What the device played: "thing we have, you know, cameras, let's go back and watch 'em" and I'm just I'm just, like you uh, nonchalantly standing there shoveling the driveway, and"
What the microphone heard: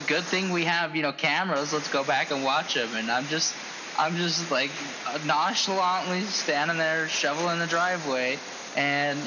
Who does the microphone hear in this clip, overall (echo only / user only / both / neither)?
echo only